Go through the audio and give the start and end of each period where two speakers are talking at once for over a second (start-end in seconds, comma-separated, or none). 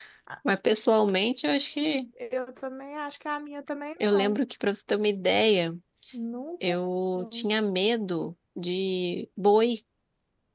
none